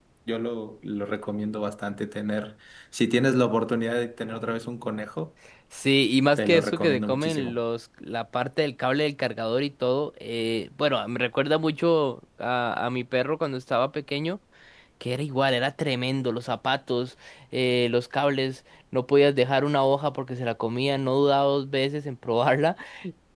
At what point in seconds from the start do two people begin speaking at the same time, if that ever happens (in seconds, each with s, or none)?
6.4 s